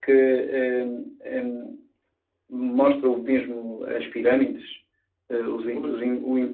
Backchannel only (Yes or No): Yes